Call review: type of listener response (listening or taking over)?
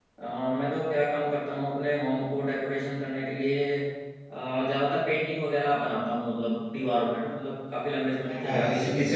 taking over